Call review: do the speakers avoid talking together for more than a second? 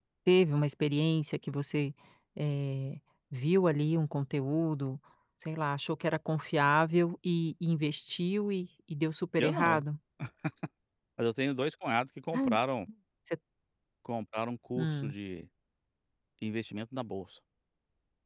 Yes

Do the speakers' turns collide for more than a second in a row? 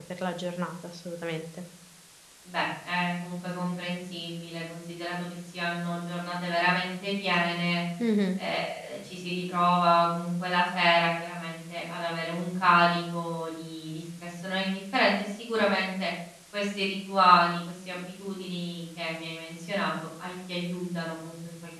No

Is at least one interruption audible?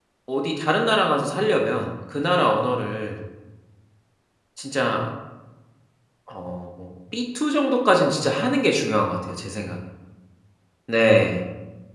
No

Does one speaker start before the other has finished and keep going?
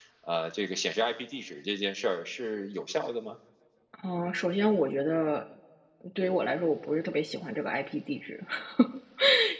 No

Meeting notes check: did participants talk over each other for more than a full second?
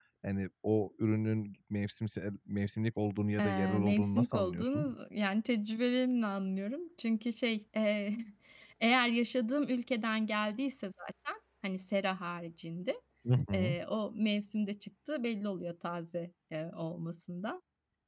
Yes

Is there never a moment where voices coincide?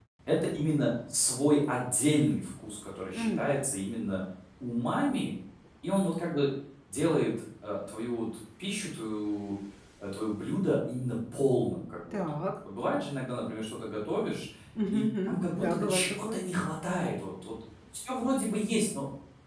No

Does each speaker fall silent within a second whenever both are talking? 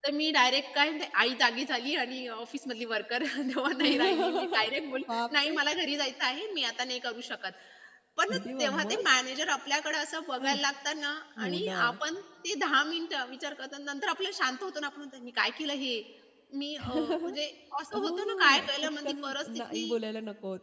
No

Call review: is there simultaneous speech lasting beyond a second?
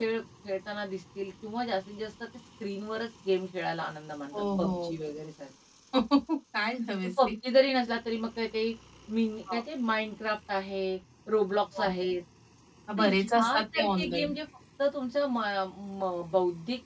Yes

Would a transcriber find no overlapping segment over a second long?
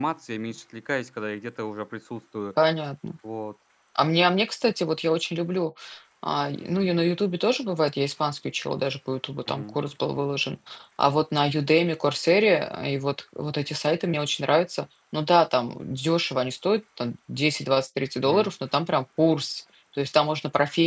Yes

